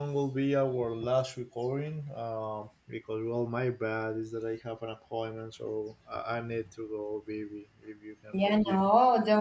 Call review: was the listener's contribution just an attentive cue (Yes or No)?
No